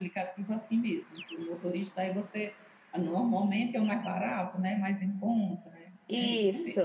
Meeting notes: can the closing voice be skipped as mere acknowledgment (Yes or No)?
No